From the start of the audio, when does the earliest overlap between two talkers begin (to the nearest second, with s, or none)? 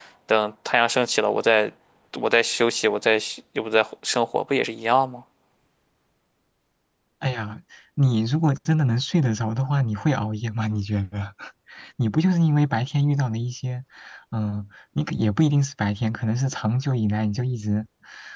none